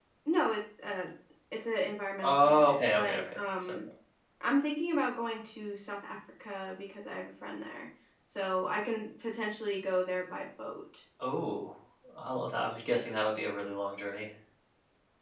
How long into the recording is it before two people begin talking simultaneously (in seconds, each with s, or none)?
2.2 s